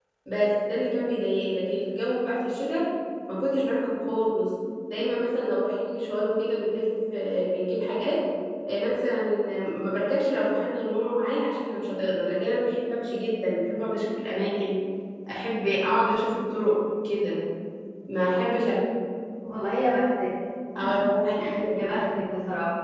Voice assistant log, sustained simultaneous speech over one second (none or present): none